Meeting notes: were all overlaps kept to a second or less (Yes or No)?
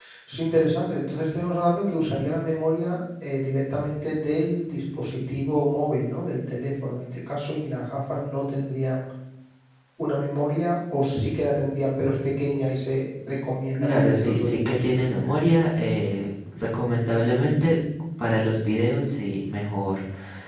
No